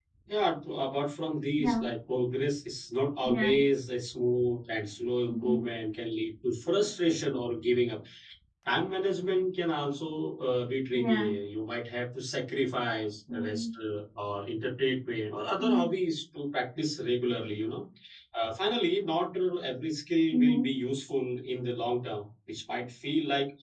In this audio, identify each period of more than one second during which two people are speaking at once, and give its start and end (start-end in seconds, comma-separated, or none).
none